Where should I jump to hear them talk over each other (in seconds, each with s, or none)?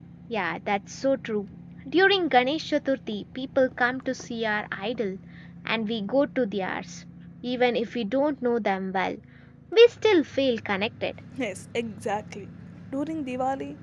none